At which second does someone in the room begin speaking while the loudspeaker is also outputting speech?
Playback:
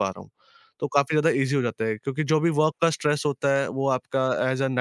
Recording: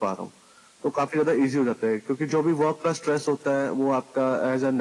none

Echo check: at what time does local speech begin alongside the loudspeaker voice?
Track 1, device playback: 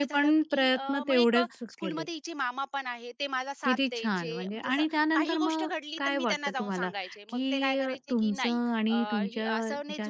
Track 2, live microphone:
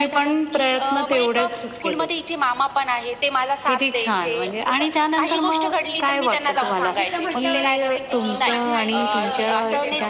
7 s

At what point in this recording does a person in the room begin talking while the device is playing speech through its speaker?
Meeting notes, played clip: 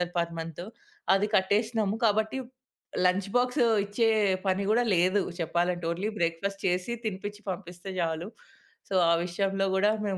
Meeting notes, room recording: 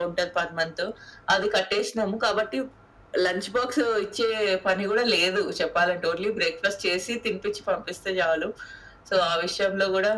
none

